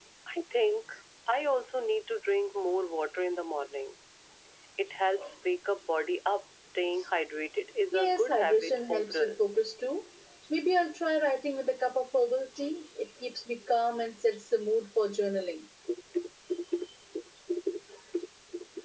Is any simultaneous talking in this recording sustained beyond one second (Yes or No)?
Yes